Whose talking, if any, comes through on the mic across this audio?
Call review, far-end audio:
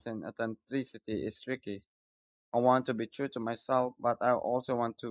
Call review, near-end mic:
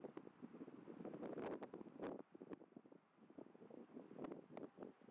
neither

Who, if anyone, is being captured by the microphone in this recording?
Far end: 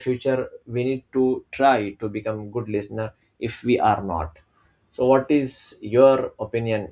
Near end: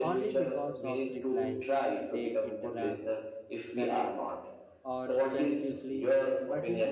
both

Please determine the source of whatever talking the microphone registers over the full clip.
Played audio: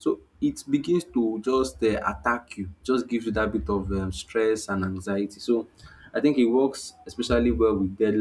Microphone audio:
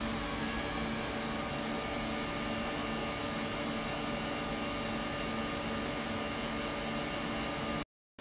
neither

